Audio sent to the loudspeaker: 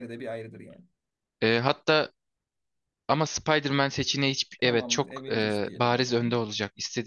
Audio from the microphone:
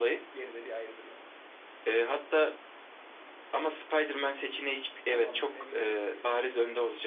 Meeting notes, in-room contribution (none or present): none